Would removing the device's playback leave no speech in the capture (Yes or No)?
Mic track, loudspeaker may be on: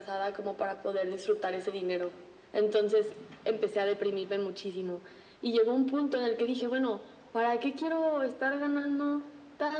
Yes